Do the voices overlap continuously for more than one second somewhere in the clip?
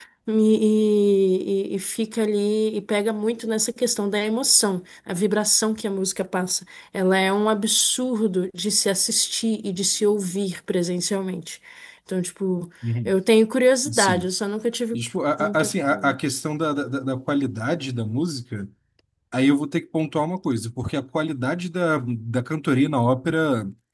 No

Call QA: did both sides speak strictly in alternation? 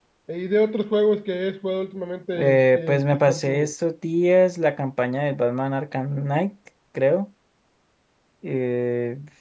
No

